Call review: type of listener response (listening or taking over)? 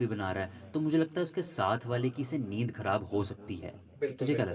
taking over